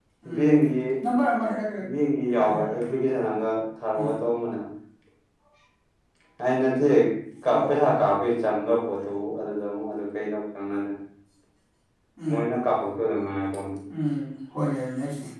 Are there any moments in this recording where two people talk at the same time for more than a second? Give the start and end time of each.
none

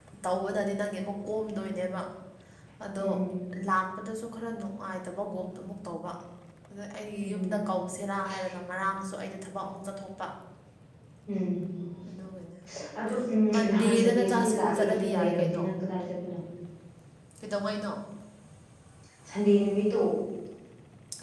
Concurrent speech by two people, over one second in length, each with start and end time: 13.5-15.6

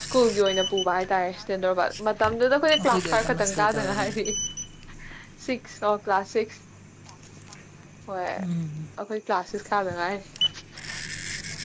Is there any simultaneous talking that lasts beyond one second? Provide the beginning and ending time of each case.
2.8-4.2

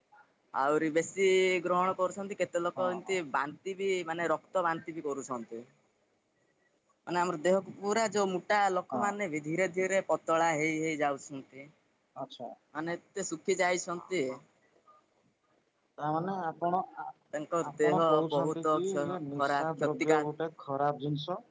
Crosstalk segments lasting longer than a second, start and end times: 17.7-20.3

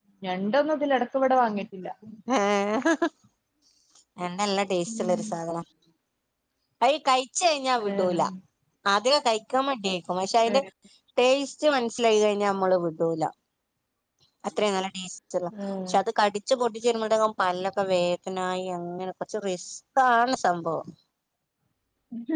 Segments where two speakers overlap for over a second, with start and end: none

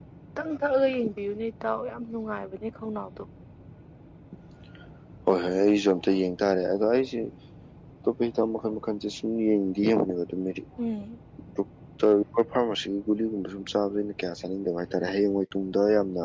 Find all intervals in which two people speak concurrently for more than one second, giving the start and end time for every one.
none

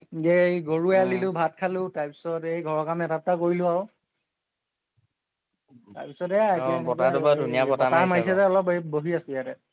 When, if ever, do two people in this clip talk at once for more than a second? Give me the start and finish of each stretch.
6.6-8.4

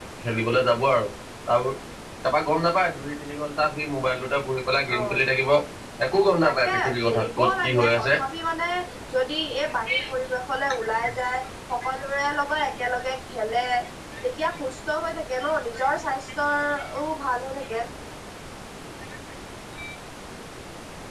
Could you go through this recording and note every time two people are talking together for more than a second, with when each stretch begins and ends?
6.4-8.1

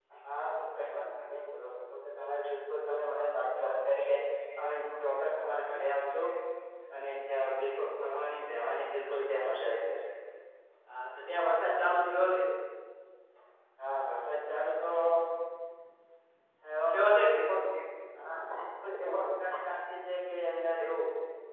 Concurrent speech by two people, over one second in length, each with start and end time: none

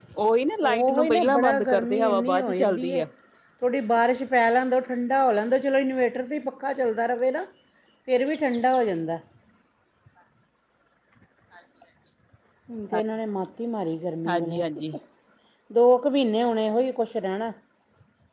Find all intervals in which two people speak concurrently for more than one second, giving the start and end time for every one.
0.6-3.0

